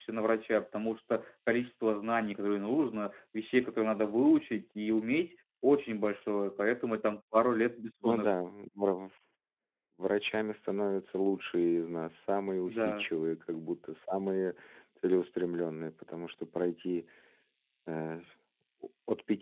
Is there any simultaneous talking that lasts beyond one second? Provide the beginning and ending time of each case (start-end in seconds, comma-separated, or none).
none